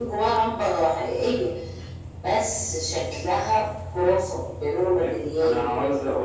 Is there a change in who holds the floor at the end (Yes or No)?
Yes